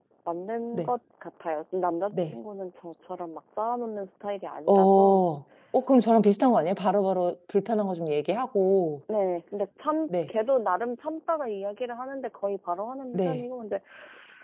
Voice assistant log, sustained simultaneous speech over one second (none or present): none